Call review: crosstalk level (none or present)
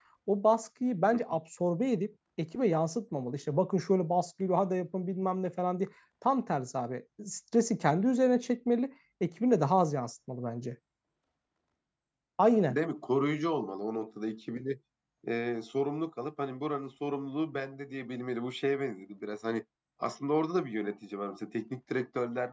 none